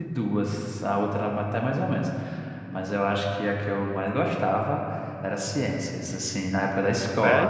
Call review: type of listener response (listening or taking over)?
listening